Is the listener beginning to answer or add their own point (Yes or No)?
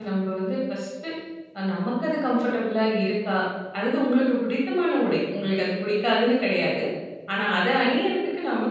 No